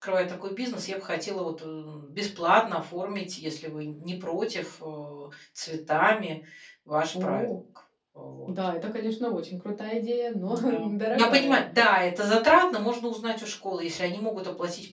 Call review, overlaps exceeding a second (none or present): none